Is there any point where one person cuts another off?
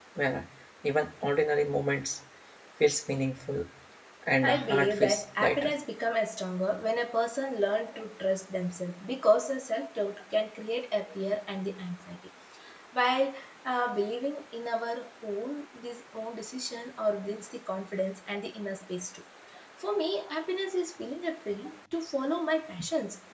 Yes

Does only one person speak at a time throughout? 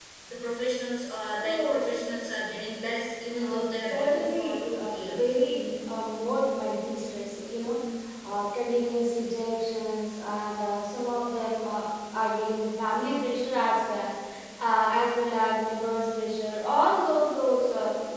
No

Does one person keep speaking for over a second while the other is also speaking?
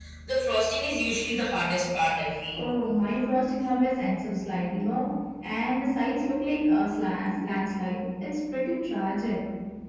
No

